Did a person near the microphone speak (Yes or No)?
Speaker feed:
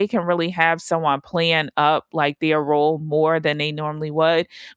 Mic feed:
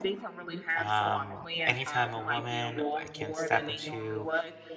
Yes